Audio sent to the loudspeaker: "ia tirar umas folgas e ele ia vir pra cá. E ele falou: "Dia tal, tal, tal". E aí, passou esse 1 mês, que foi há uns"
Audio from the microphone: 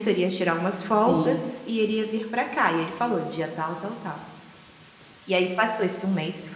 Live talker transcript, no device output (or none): Sim.